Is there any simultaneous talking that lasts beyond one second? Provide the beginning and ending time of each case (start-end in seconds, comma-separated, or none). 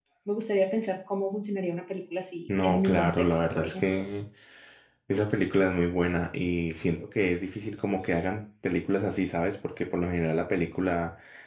2.6-4.0